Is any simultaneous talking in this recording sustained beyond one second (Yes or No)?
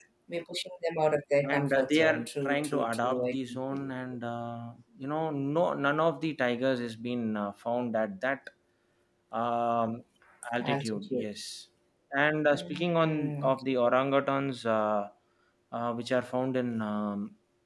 Yes